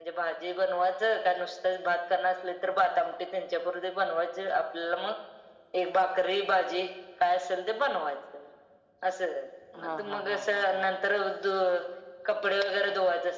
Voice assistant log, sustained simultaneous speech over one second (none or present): present